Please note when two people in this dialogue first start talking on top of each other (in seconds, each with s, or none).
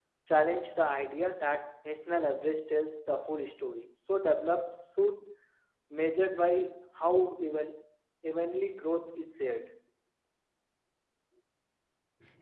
none